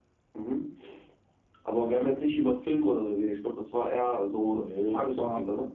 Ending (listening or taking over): taking over